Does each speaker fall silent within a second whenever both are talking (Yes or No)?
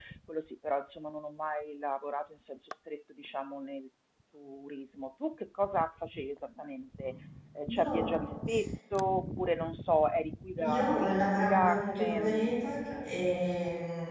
No